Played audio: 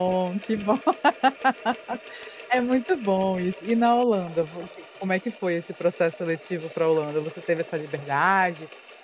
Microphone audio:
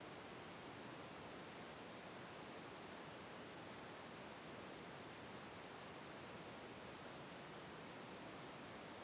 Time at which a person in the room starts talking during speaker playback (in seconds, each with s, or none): none